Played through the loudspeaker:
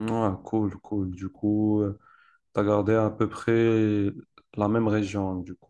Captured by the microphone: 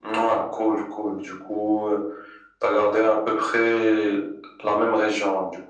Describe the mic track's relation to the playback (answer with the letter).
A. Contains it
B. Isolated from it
A